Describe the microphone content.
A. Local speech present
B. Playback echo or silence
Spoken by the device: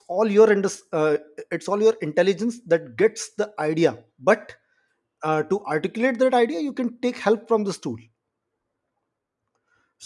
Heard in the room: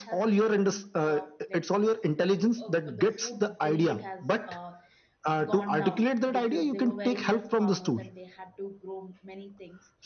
A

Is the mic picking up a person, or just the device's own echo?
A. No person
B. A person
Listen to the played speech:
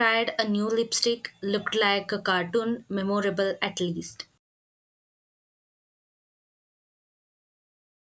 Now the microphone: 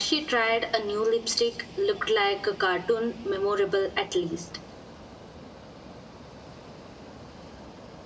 A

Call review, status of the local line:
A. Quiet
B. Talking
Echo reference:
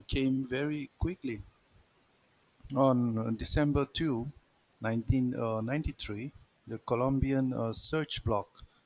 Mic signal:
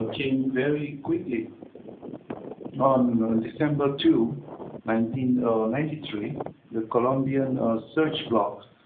A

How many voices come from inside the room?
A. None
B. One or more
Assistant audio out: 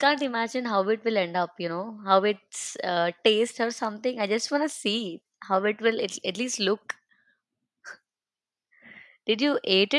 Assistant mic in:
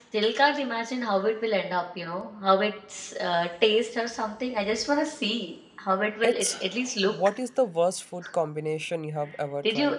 B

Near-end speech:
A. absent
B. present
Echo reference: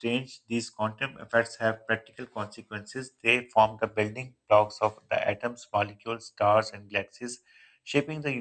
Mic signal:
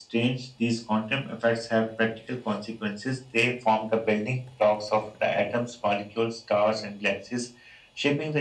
A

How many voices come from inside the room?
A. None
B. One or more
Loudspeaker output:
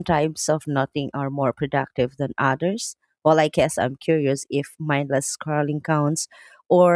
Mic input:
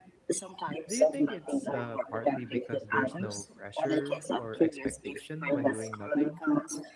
B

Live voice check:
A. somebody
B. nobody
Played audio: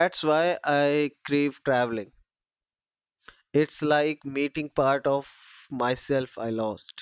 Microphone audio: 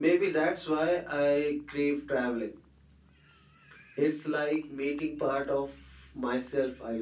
B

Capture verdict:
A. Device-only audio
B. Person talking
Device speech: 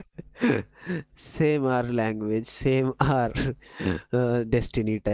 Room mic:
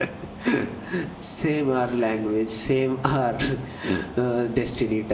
A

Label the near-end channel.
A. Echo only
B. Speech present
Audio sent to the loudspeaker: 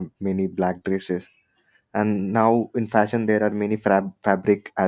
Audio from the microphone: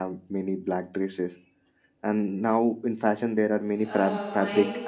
B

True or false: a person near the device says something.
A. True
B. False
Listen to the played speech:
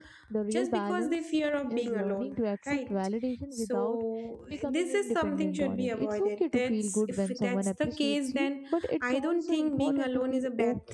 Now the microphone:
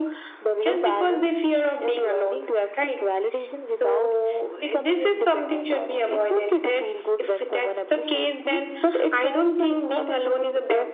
B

